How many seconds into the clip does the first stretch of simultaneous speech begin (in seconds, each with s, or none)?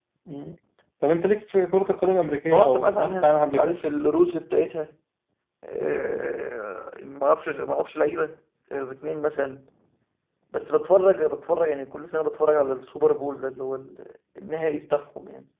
2.5 s